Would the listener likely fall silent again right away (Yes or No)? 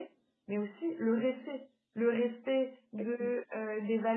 Yes